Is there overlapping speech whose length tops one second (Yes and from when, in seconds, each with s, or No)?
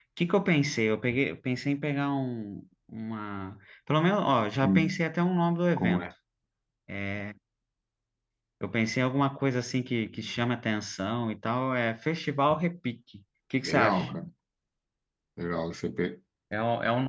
No